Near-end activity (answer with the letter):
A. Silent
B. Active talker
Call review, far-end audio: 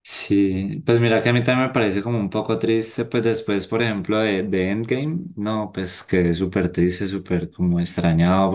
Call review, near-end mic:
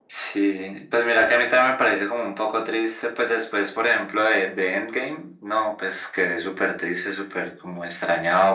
A